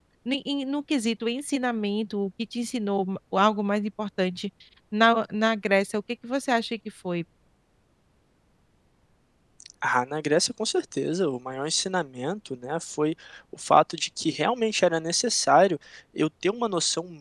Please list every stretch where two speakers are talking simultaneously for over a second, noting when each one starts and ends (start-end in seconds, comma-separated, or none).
none